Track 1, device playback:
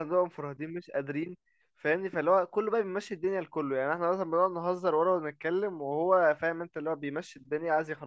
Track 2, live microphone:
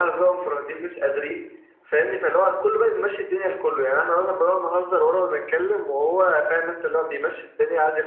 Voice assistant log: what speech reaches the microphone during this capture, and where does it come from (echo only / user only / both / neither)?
echo only